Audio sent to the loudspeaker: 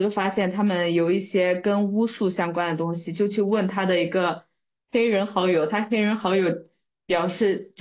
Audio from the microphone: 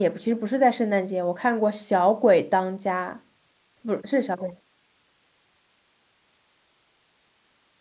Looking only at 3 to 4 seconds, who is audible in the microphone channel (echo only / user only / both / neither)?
user only